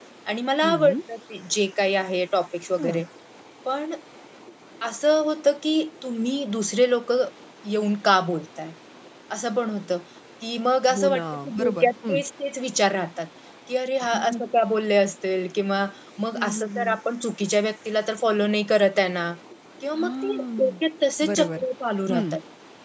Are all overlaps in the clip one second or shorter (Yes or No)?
No